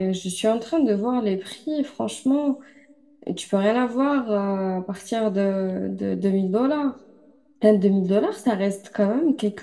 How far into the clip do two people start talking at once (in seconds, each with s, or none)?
none